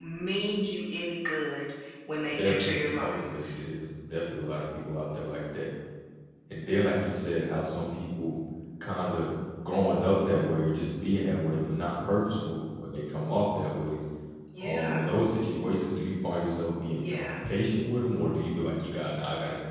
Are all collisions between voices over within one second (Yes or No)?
No